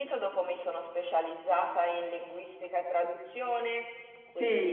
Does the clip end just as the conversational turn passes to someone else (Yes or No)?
No